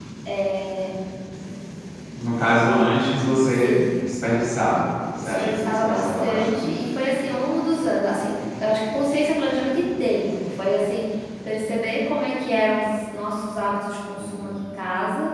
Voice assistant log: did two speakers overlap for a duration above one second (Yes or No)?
Yes